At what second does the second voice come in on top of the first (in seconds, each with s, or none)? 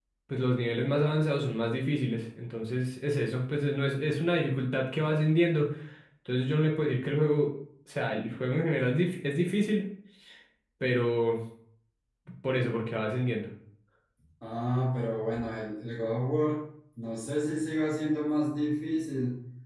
none